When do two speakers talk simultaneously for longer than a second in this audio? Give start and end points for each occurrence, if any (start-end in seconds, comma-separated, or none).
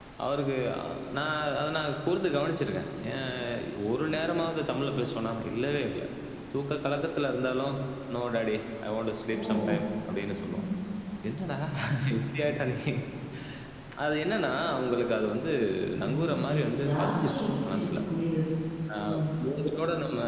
16.0-18.0